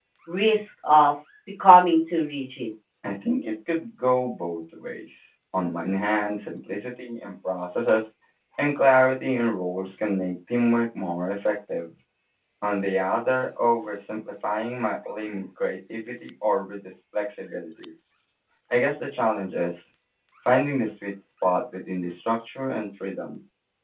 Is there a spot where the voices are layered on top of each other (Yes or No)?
No